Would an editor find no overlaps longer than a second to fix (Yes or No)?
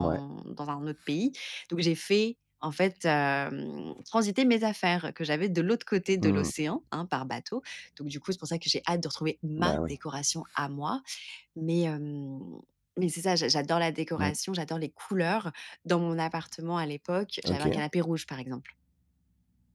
Yes